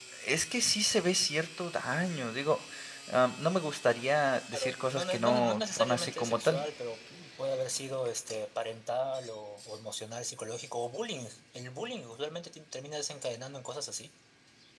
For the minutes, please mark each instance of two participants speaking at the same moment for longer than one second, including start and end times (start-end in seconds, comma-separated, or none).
4.5-6.6